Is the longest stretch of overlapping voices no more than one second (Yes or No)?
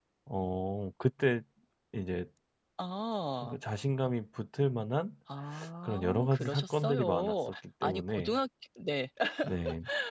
No